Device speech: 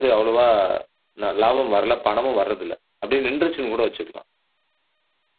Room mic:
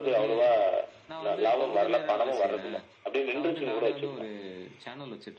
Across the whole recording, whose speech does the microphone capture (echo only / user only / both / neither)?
both